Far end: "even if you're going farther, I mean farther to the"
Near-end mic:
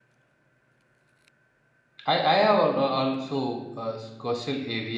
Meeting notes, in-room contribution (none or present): present